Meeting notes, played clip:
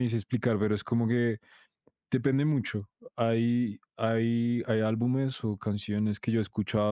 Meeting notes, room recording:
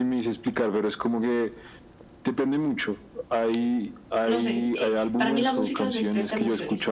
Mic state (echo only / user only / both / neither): both